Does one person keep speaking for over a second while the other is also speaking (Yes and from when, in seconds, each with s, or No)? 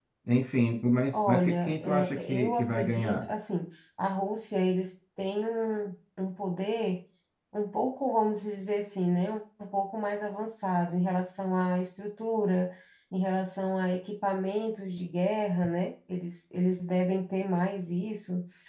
Yes, from 1.1 s